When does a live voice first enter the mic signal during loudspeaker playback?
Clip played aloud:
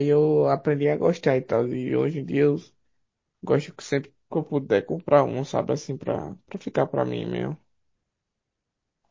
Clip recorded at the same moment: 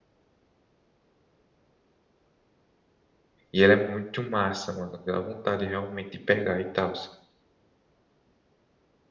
3.5 s

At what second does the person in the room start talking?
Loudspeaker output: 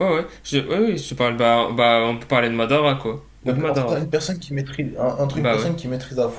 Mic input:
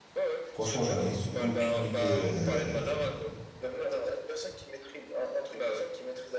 0.5 s

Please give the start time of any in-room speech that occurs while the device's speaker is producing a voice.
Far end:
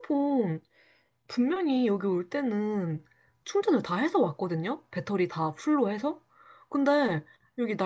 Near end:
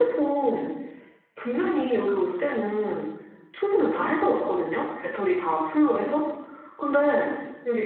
none

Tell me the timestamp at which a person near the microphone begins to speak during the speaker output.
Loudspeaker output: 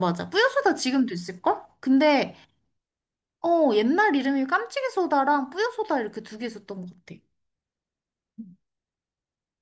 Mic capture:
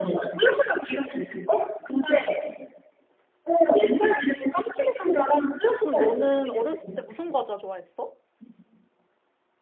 5.8 s

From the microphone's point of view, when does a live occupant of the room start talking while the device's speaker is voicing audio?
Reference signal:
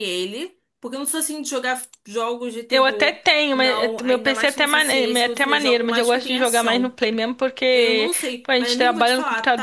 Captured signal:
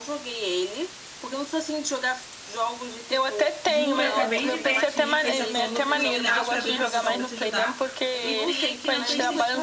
3.7 s

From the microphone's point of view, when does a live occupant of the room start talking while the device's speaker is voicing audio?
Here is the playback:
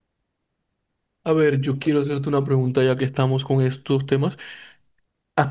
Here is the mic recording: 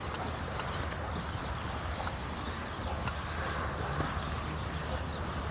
none

